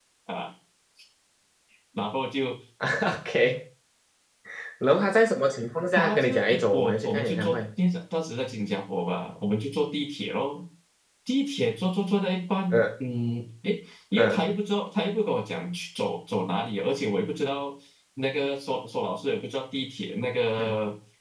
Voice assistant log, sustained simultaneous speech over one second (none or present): present